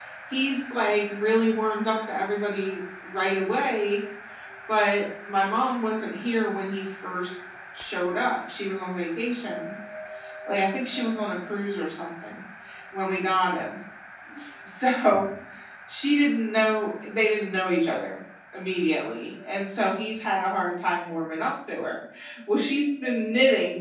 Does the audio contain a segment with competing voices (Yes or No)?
No